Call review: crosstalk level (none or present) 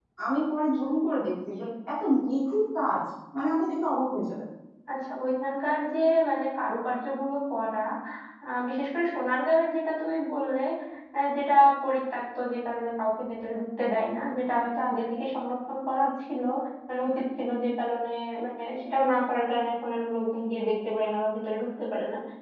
none